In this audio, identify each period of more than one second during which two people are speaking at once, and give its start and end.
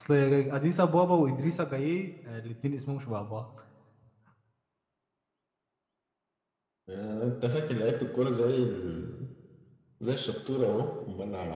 none

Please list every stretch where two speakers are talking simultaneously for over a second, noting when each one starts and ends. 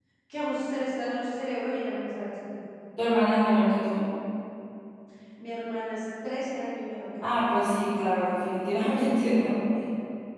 none

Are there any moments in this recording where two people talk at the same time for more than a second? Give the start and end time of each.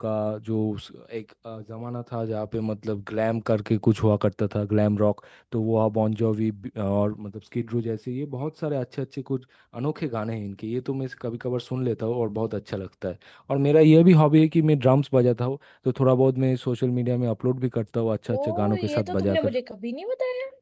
18.3-19.5

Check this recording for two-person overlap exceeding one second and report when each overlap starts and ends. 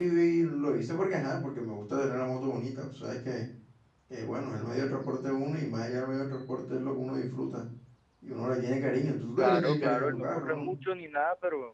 9.4-10.7

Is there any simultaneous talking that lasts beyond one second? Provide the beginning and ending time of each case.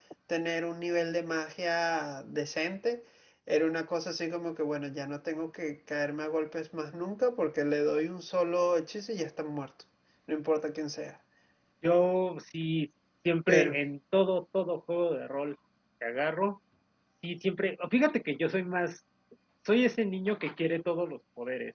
none

